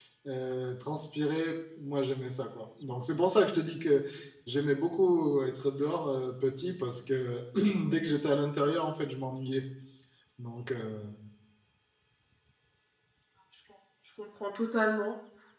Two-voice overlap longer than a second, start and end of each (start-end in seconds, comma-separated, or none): none